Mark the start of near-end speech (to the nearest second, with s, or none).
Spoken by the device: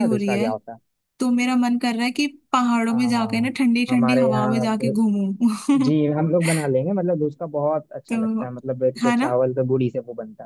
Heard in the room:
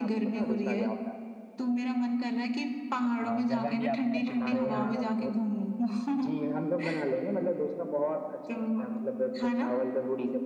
3 s